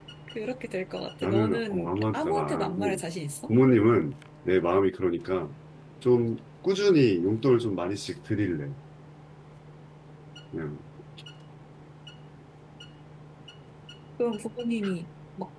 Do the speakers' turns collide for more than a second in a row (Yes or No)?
Yes